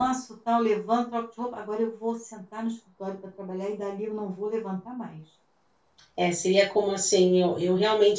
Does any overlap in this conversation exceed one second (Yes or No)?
No